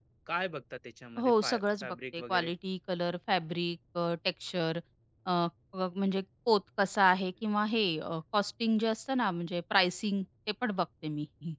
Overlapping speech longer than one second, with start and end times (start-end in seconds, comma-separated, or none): 1.2-2.5